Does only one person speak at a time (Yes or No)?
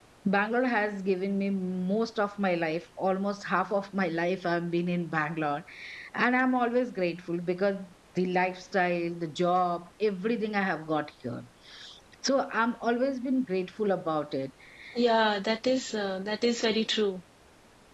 Yes